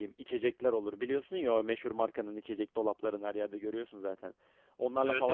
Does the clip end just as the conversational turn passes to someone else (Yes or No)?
No